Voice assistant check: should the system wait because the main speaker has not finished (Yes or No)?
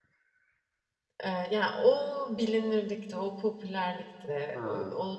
Yes